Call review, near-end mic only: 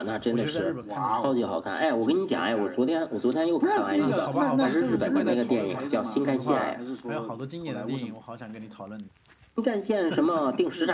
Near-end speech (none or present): present